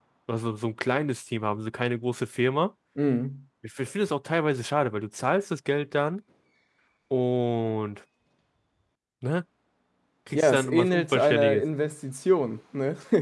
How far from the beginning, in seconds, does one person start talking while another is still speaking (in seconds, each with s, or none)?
10.3 s